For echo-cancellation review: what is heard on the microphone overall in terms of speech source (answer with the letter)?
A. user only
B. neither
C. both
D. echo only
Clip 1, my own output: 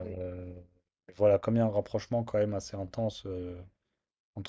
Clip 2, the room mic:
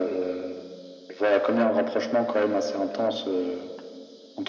D